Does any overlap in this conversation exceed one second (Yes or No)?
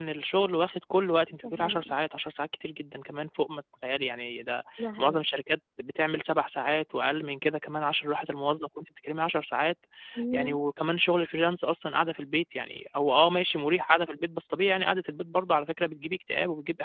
No